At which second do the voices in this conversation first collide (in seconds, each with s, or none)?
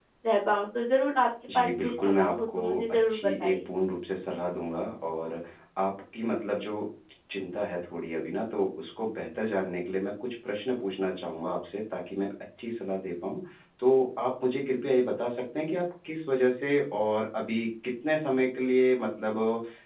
1.5 s